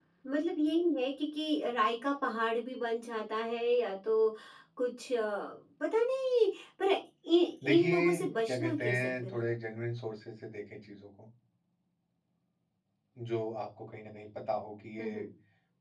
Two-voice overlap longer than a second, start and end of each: 7.6-9.3

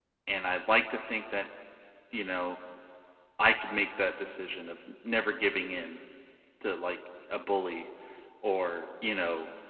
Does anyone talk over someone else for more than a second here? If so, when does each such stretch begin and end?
none

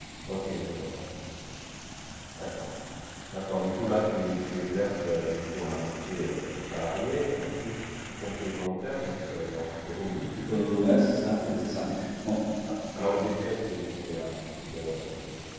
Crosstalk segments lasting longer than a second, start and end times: none

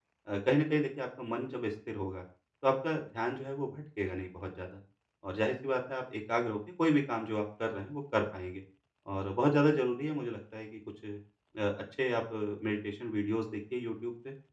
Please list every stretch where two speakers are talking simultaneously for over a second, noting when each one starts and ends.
none

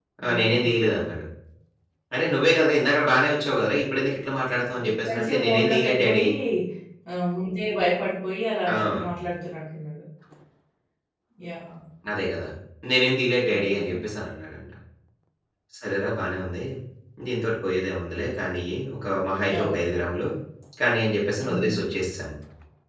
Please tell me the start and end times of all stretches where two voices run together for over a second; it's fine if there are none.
4.8-6.2

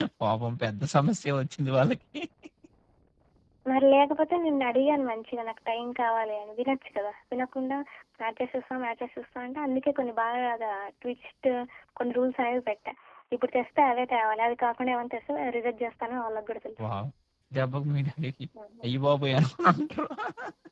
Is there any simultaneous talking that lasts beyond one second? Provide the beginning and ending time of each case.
none

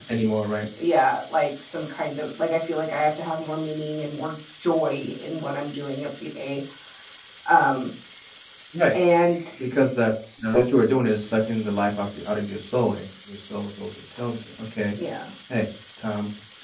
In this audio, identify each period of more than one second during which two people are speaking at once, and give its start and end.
none

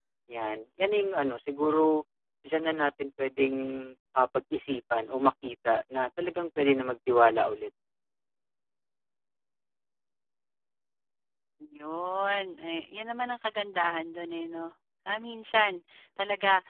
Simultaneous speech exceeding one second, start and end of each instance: none

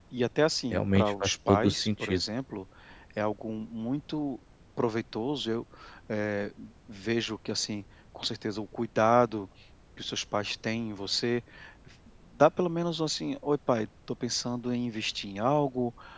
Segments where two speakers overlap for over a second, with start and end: 0.7-2.2

